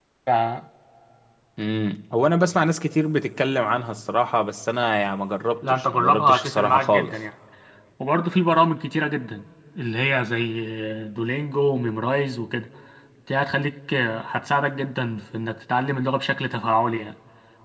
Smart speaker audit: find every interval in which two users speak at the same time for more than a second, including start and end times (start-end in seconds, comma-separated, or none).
5.6-7.1